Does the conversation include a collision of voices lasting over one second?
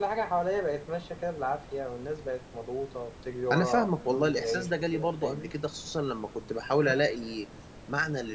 Yes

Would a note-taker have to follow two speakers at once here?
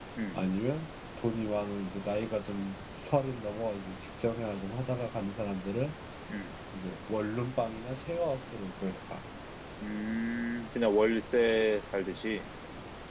No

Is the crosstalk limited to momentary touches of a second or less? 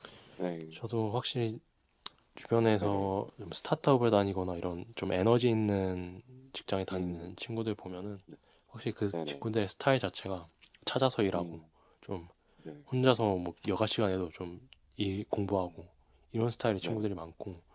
Yes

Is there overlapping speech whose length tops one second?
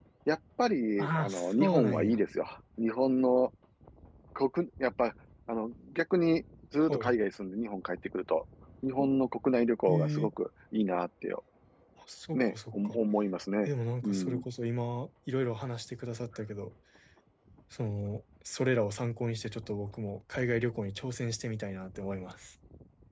Yes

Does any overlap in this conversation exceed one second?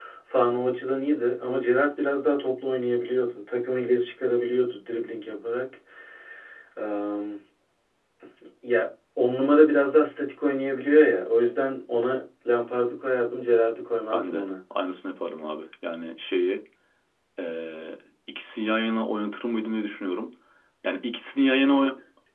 No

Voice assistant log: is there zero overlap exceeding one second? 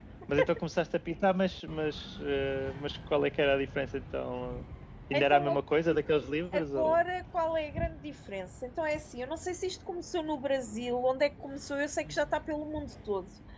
Yes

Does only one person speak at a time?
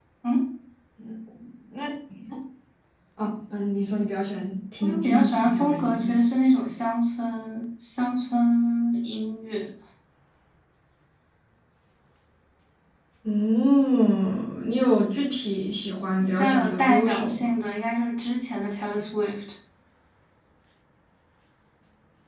No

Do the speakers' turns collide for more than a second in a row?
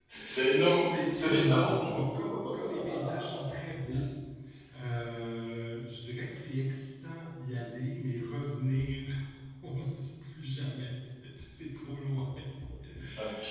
Yes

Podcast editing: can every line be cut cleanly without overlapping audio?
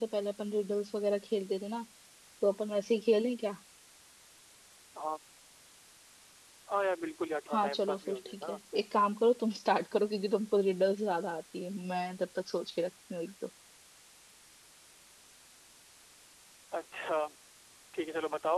No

